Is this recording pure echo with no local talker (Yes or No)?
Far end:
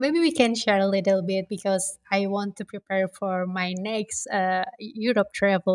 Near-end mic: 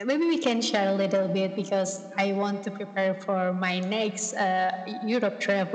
Yes